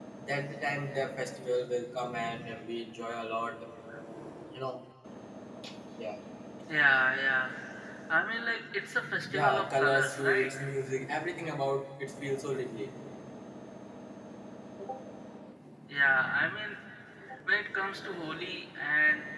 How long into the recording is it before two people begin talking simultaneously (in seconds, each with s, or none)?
9.3 s